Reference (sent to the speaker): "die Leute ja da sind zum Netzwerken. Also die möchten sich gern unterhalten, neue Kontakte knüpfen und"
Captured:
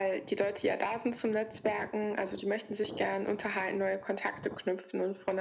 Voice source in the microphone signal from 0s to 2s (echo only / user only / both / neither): echo only